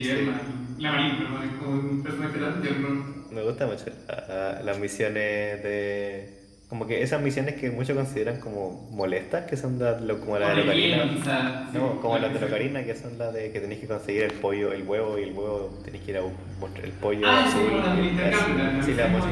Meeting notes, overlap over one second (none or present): present